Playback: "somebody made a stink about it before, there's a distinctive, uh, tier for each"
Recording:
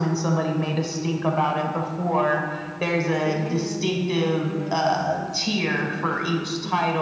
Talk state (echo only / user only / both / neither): both